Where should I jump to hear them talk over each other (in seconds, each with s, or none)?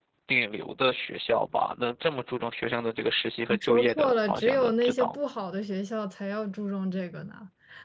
3.5 s